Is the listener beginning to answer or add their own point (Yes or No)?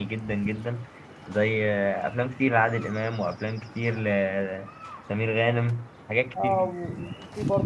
Yes